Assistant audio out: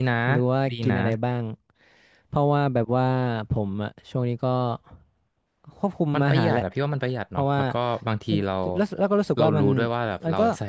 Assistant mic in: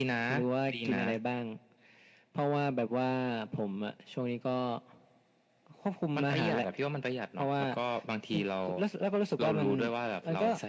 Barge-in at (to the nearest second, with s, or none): none